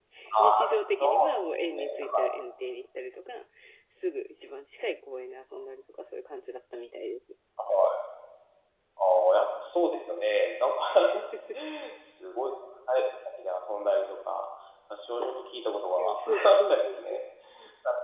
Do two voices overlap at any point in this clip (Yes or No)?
Yes